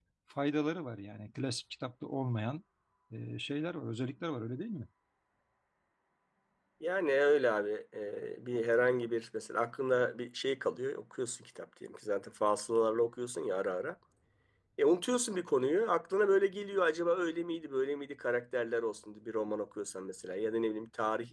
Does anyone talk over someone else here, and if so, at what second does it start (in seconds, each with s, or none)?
none